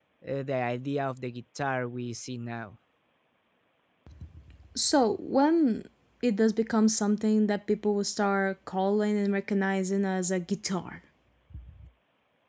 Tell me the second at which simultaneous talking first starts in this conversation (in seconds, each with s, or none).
none